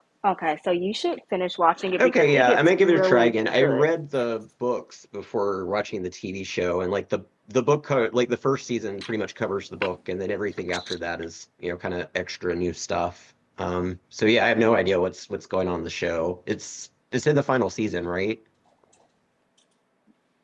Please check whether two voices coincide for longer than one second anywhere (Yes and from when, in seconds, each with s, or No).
Yes, from 2.0 s